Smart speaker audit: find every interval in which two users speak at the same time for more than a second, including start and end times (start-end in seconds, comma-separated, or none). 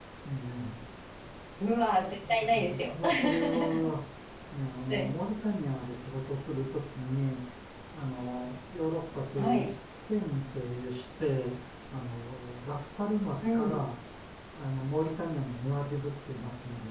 2.3-3.9